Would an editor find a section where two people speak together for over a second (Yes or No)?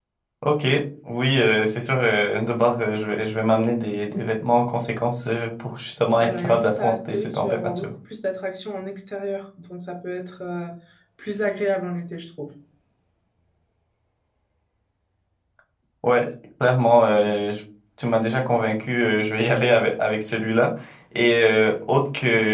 Yes